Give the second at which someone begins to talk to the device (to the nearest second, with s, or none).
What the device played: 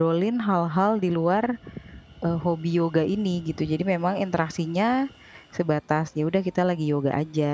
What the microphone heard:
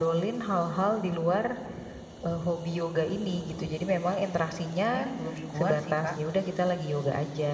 5 s